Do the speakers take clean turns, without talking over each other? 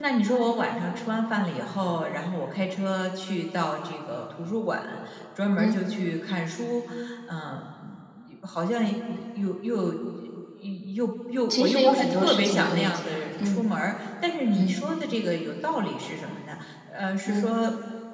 No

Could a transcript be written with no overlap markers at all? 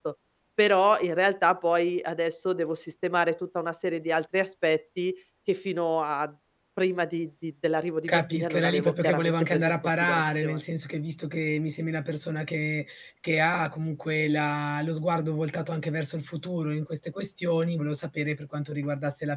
No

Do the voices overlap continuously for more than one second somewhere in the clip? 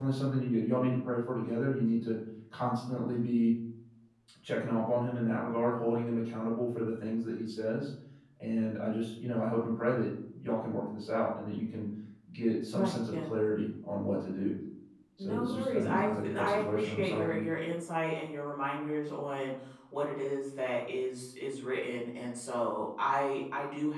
Yes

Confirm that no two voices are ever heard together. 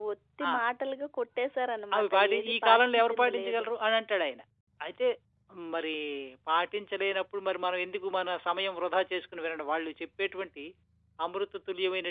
No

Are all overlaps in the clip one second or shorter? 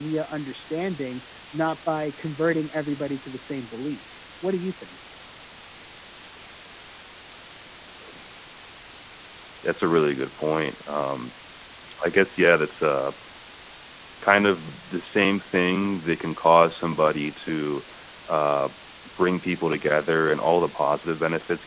Yes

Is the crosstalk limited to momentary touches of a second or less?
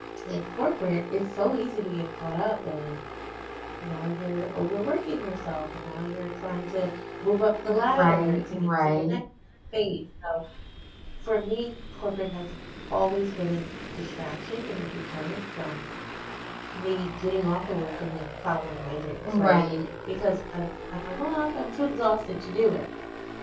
No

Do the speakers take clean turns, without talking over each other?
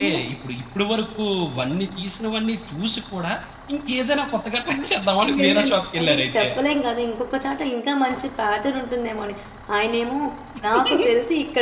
No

